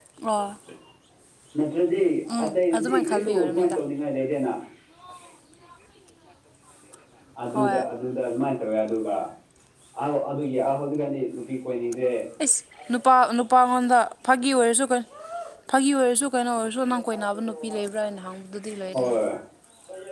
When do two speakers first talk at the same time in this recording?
2.3 s

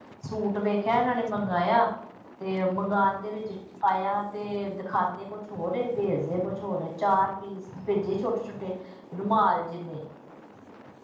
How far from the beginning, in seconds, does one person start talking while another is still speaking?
none

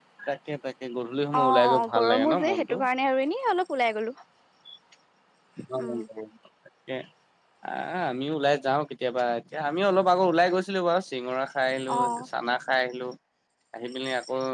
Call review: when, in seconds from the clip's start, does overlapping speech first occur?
1.4 s

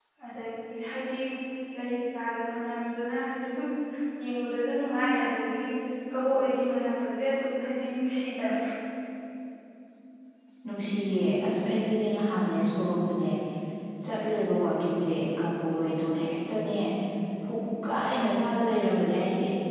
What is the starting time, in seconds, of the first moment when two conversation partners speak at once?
none

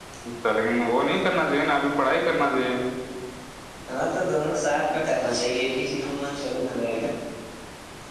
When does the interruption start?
none

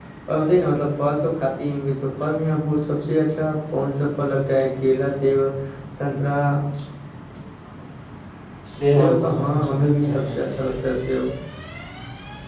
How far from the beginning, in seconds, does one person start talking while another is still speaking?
8.9 s

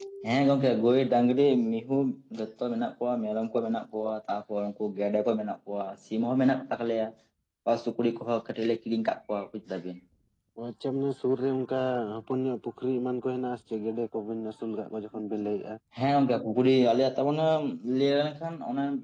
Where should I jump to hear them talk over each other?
none

